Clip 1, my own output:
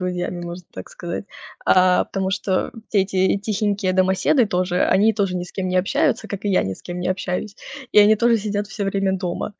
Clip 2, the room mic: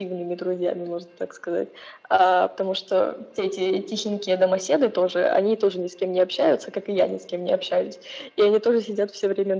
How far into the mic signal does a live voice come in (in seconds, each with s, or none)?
none